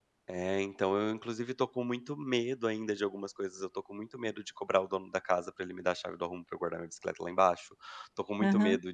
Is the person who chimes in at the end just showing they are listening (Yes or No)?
Yes